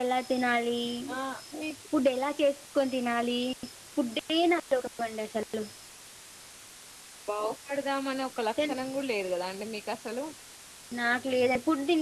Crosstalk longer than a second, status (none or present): none